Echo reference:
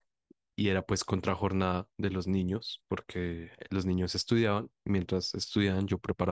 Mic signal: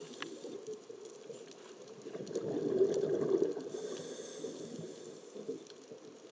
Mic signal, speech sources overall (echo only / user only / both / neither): neither